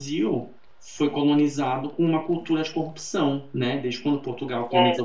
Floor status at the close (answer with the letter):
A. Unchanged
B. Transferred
A